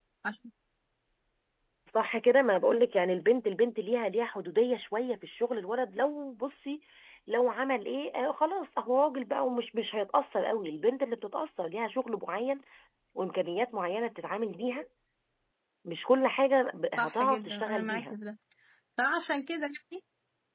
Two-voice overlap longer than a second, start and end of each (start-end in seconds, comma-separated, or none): 16.9-18.1